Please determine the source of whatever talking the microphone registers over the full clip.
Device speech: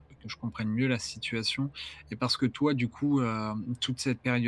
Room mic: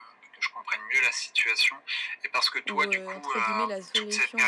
both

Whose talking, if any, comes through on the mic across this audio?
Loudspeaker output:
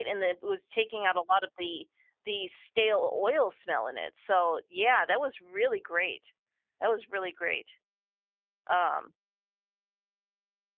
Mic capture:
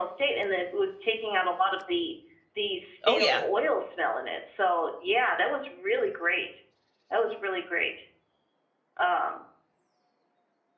both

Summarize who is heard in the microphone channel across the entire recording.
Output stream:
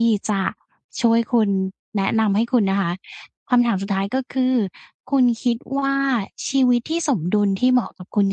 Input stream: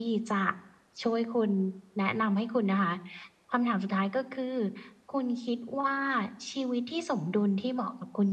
echo only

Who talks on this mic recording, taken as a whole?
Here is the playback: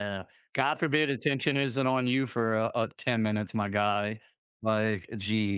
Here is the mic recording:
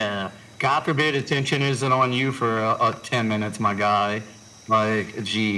echo only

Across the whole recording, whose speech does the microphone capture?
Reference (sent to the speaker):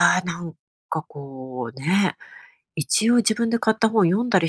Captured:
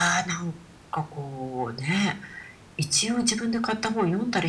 echo only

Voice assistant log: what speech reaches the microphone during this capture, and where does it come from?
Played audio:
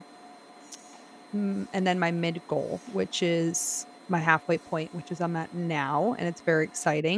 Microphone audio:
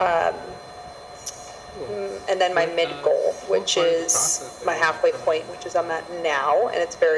both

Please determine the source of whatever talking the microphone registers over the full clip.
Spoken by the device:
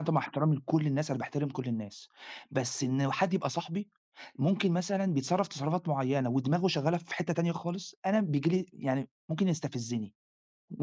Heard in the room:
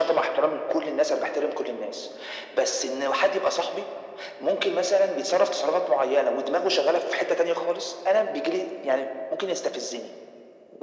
echo only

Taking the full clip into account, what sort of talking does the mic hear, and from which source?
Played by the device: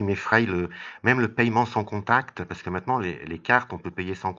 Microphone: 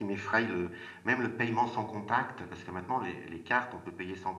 echo only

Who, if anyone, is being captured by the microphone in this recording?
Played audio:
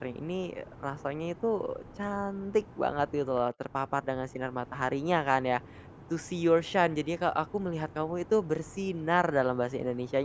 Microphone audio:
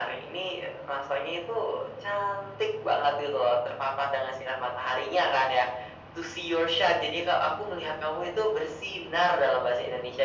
echo only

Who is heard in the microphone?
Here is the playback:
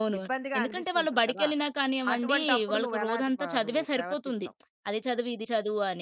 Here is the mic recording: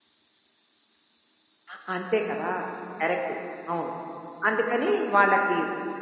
user only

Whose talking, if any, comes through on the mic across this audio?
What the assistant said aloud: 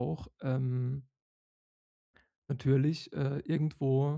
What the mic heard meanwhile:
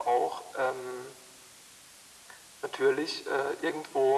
echo only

